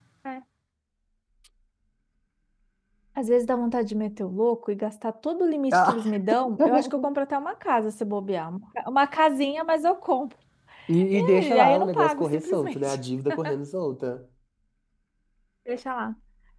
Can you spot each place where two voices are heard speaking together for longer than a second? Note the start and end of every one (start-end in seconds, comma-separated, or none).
11.1-13.0